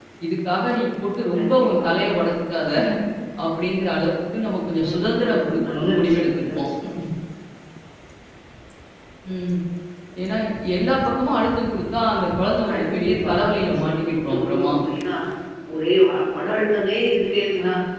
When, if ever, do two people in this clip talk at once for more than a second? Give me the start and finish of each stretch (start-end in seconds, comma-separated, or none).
4.9-6.7, 12.7-14.7